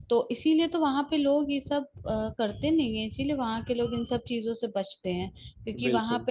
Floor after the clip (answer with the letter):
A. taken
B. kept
B